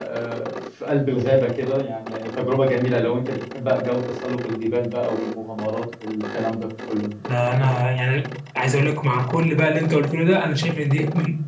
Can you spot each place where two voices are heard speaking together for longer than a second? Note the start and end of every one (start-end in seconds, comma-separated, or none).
none